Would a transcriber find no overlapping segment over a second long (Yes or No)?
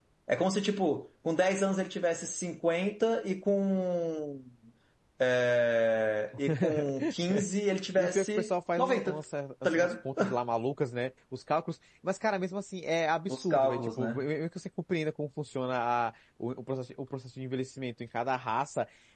No